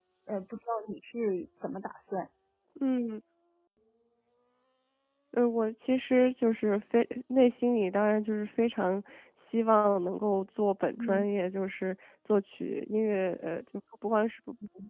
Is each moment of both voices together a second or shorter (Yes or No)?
Yes